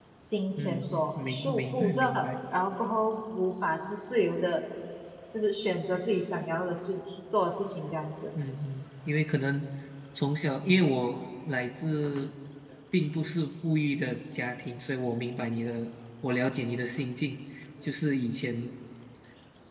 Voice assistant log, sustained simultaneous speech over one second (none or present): present